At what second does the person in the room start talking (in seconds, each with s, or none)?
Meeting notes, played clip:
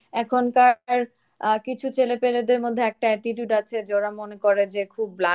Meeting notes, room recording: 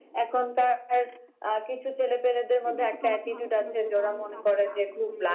2.6 s